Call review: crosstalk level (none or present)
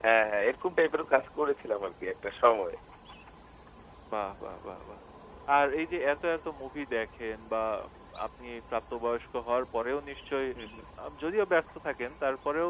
none